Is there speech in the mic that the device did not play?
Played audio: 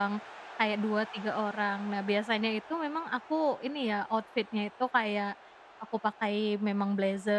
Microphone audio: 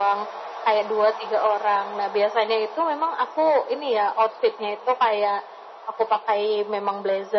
No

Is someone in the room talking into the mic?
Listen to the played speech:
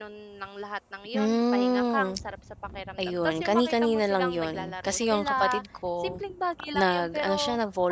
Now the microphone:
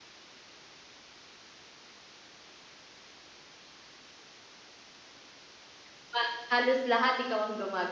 Yes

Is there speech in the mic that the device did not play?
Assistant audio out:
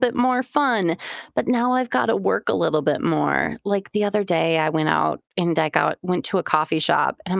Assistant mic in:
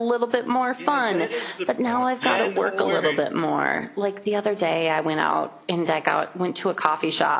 Yes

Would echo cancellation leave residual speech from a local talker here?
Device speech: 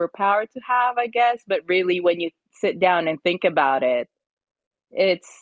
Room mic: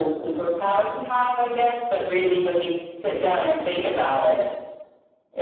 No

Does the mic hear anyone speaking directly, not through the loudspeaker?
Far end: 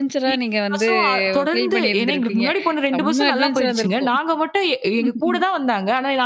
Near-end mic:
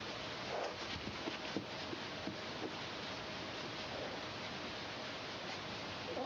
No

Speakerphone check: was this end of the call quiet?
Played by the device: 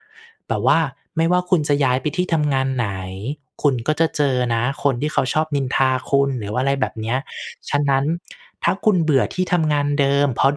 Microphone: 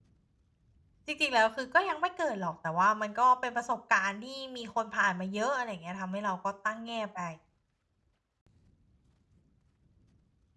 No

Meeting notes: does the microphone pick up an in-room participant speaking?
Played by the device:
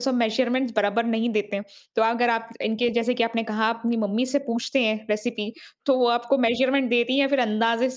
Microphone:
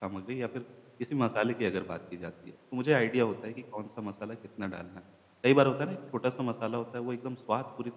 Yes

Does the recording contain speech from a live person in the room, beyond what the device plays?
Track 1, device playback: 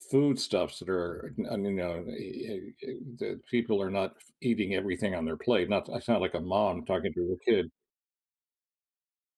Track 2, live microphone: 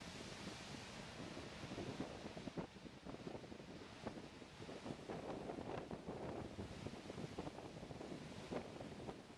No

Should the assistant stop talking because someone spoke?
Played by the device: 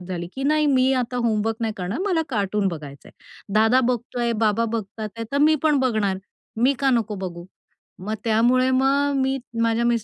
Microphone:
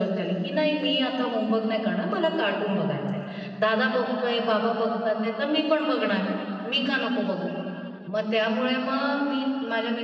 No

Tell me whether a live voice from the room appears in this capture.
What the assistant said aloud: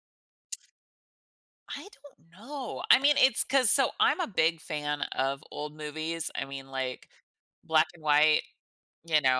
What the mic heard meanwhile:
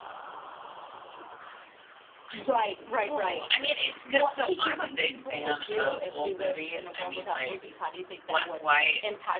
Yes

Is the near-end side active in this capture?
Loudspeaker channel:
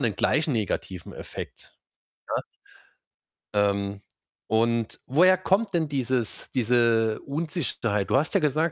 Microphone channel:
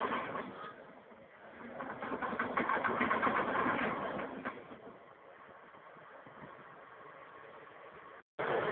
No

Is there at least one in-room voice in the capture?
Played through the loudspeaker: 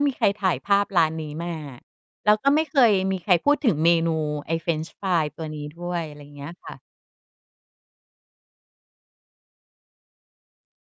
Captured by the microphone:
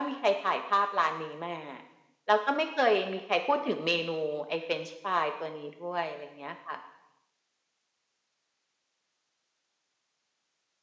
No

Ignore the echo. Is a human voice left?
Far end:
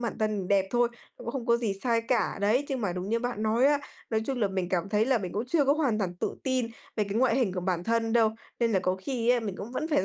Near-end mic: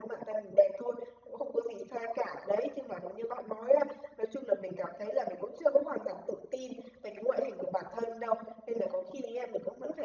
No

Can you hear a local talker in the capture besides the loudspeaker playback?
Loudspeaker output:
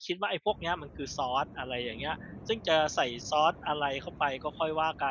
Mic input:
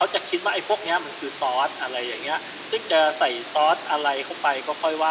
No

